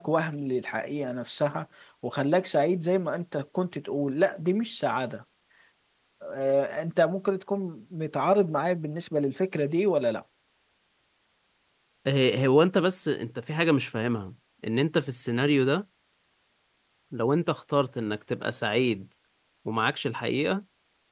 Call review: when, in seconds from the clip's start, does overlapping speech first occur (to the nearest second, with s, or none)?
none